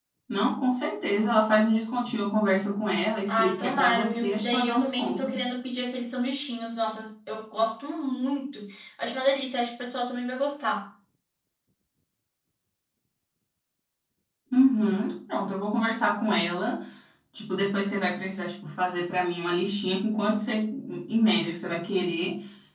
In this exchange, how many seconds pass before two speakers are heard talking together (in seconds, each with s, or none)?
3.3 s